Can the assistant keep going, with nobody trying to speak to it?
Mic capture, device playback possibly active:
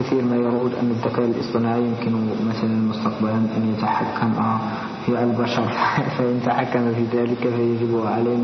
Yes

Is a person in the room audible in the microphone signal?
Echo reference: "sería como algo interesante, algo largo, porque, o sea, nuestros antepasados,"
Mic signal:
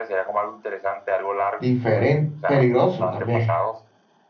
Yes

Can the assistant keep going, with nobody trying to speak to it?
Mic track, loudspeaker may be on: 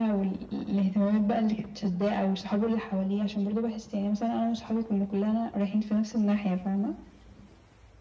Yes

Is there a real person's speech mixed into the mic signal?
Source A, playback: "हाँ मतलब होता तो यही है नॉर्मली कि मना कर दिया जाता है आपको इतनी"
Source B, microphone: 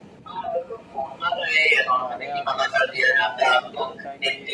Yes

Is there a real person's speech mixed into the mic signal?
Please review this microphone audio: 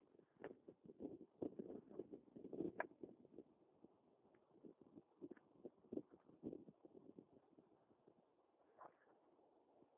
No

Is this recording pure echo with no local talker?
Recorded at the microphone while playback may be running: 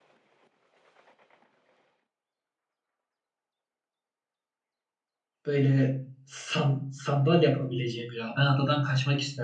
No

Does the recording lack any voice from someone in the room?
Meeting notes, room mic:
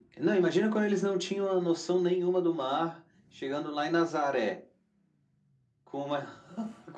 Yes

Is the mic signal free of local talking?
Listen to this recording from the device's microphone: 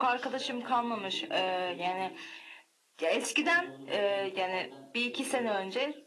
No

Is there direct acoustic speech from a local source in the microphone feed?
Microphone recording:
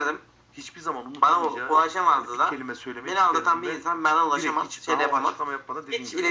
No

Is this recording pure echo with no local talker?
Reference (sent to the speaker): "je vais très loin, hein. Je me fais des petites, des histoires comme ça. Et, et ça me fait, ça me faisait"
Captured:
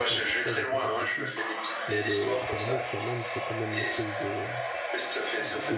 No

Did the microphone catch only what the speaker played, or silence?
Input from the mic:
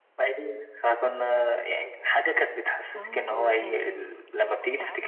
No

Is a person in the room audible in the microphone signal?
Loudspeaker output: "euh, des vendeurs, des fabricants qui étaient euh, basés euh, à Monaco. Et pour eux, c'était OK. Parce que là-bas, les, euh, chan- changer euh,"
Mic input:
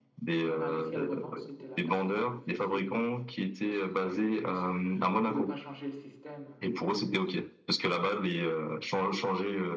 Yes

